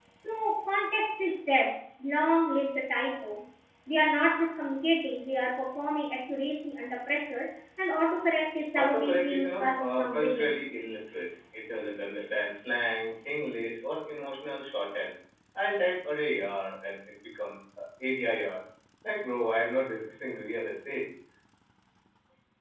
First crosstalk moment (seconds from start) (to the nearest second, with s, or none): 9 s